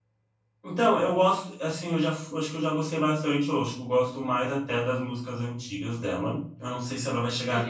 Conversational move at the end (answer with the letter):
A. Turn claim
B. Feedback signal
A